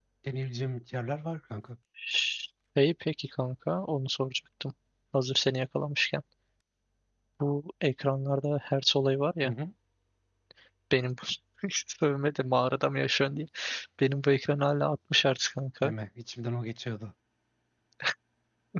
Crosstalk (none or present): none